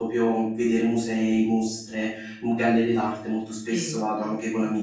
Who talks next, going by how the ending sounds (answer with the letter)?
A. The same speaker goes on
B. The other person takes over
B